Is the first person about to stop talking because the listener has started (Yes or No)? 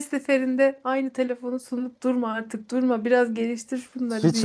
Yes